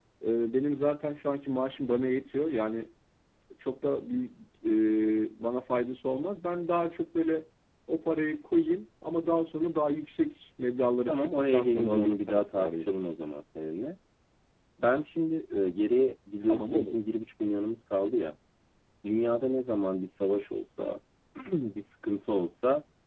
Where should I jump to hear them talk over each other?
11 s

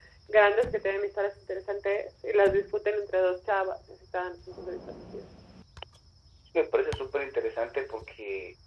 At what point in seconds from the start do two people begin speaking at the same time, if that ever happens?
none

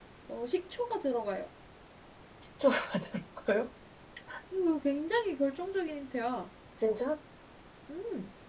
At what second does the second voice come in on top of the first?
none

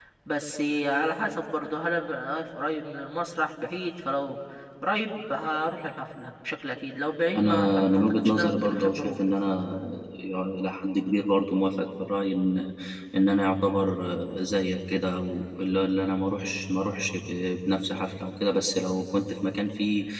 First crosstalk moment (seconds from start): 7 s

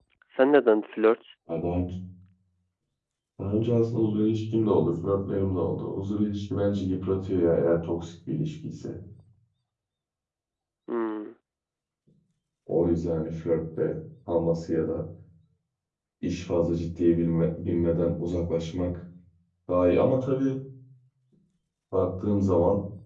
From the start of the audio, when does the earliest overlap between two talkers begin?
none

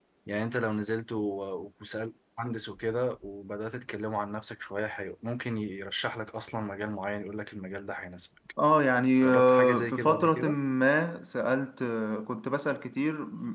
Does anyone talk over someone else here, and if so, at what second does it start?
9 s

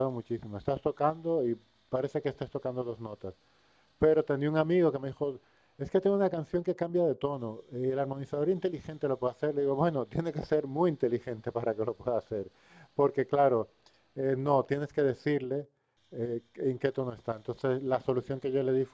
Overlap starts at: none

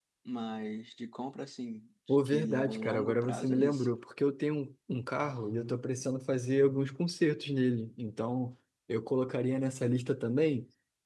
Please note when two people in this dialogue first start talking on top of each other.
2 s

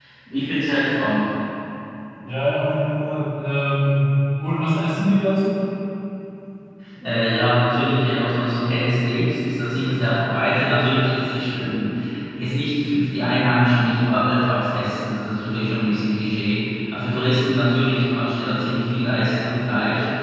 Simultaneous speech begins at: none

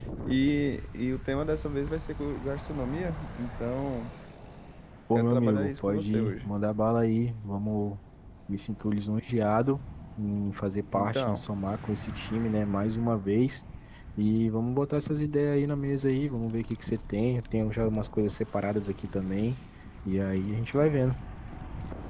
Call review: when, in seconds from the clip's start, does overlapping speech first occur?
5 s

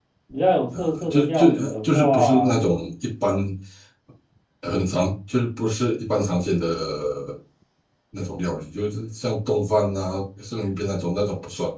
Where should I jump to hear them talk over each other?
1 s

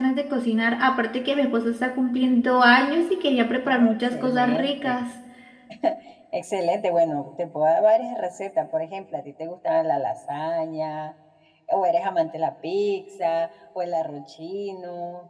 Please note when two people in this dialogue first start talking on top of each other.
4 s

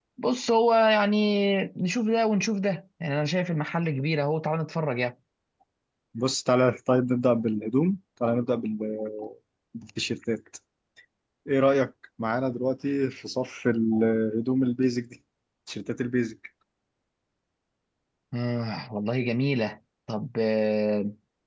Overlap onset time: none

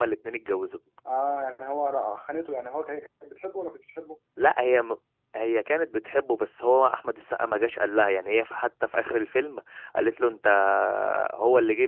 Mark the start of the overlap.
none

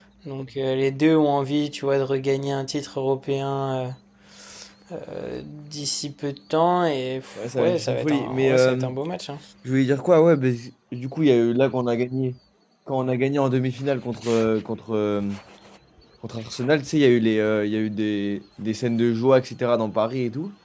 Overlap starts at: 7 s

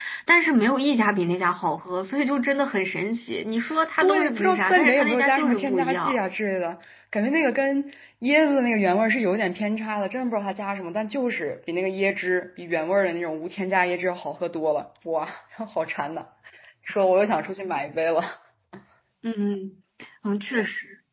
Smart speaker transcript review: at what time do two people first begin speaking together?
4 s

